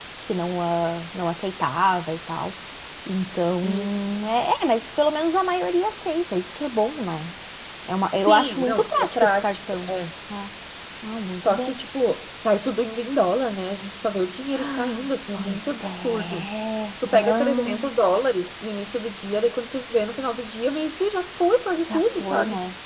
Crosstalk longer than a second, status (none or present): present